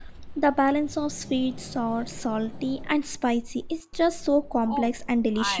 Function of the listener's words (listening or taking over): taking over